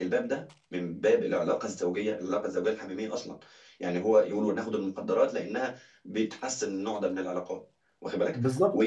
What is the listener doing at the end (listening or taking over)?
listening